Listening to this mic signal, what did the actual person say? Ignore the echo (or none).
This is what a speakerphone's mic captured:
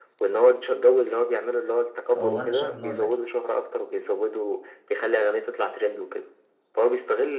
هو أنا شايف إن هو ذكي